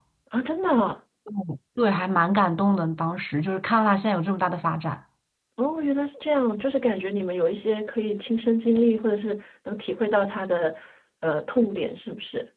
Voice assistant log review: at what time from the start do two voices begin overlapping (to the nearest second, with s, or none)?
none